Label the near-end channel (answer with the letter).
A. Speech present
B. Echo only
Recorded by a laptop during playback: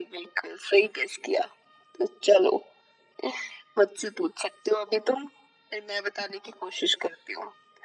B